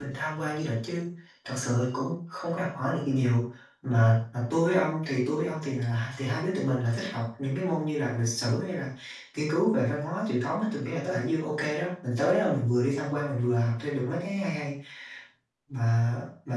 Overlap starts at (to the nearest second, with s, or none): none